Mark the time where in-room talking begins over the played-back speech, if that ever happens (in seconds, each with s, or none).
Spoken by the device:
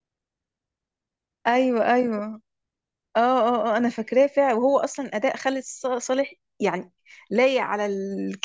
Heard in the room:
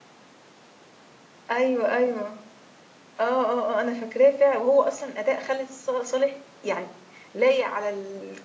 none